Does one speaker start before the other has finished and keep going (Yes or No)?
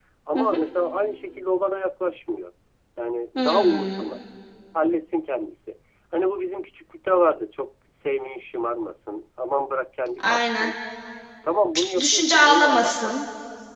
Yes